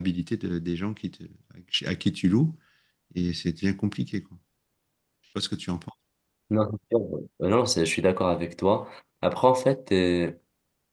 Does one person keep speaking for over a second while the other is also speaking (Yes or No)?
No